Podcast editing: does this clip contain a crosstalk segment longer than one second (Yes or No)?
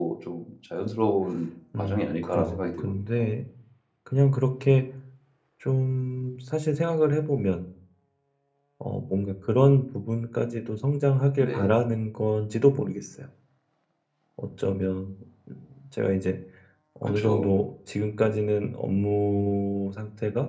Yes